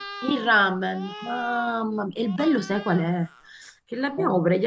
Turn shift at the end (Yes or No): No